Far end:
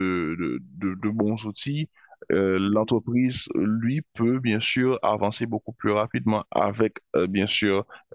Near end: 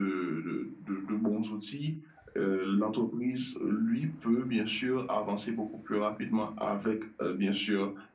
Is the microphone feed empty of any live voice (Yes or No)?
Yes